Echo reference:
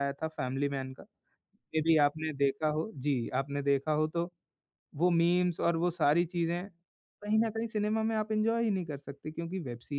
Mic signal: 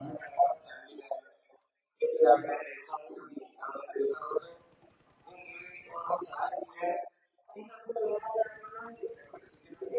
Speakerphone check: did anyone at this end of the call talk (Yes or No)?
No